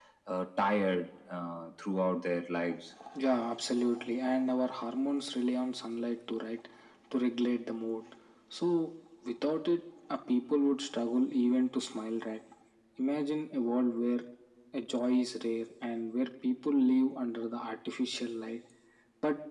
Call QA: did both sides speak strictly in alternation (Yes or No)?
Yes